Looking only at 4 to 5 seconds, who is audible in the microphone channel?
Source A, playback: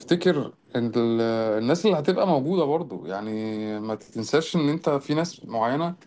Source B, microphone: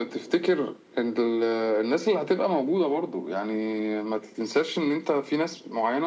echo only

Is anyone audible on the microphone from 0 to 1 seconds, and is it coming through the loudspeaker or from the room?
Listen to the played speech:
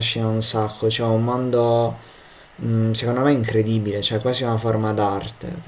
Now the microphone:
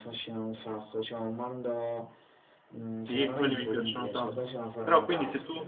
echo only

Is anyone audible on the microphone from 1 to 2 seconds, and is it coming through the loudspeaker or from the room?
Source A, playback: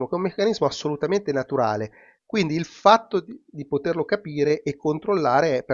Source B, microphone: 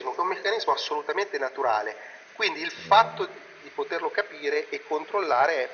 echo only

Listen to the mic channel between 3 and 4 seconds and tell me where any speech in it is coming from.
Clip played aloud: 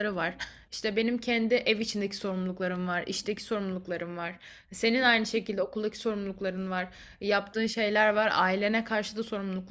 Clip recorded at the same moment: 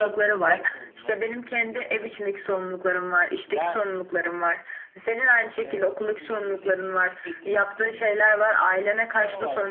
both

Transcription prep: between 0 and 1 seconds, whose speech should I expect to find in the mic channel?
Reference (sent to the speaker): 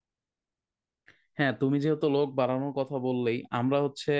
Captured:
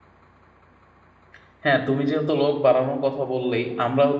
neither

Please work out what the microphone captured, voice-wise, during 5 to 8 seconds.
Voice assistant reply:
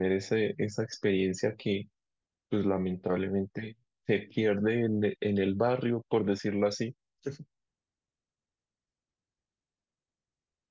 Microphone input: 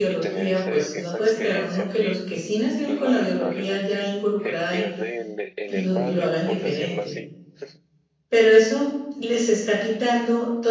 both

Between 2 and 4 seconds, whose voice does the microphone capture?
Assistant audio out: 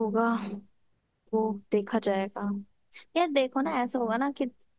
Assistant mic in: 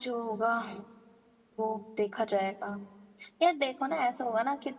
echo only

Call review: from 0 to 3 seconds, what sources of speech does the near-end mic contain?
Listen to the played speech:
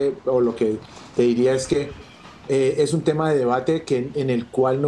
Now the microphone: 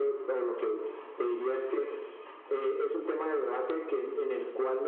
echo only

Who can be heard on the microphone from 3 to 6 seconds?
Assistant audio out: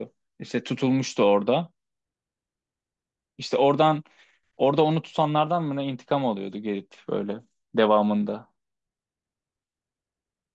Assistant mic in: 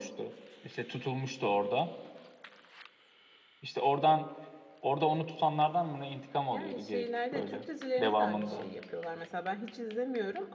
echo only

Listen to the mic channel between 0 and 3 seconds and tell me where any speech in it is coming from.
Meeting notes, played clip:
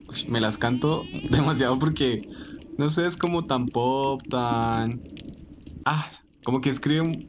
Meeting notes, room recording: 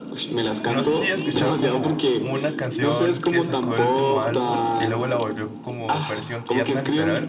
both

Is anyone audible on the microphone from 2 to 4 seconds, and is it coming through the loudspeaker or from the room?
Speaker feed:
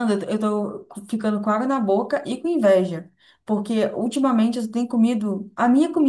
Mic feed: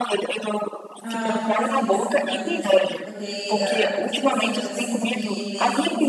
both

